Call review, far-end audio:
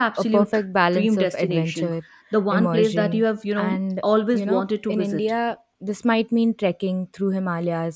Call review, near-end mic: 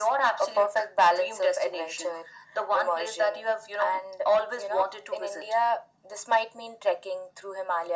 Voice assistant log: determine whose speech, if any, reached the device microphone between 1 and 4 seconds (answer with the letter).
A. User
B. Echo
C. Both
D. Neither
B